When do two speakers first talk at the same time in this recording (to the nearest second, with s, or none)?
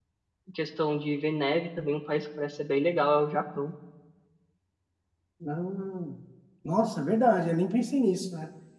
none